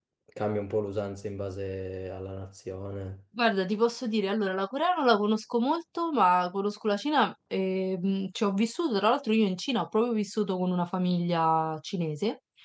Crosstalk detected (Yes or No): No